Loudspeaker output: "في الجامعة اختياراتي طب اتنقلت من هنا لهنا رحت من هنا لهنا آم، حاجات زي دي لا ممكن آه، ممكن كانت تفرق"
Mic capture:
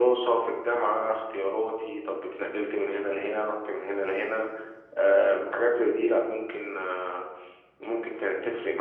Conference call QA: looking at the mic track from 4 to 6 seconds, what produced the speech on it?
echo only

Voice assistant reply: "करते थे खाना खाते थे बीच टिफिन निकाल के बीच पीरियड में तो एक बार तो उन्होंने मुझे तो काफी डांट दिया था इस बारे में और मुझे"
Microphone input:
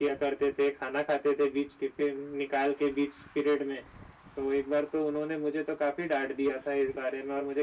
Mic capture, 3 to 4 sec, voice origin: echo only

